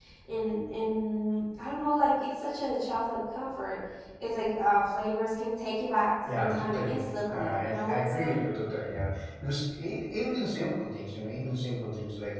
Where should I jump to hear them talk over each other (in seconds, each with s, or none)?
6.3 s